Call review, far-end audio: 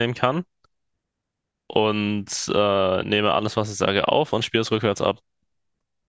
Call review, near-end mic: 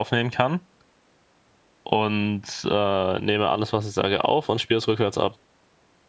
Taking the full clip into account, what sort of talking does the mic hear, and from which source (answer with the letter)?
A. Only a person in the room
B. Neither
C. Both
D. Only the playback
D